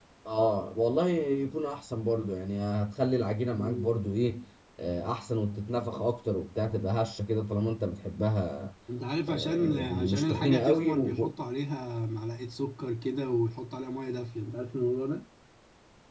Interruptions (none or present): present